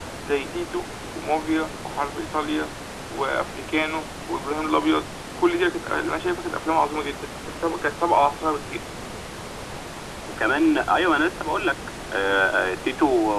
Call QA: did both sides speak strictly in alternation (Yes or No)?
Yes